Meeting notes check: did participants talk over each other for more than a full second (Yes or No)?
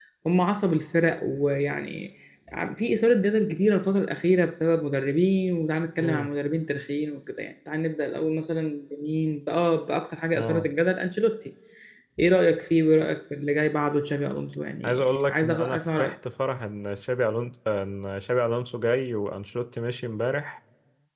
Yes